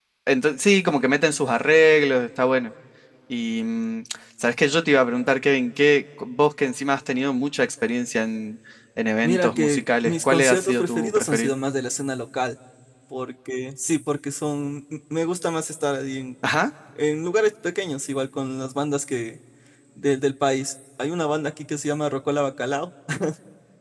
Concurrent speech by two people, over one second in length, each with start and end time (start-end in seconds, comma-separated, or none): 9.2-11.5